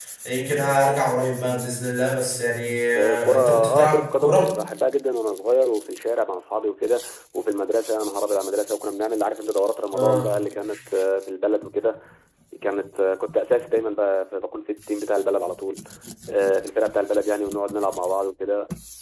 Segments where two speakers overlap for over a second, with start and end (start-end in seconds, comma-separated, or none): 2.9-4.5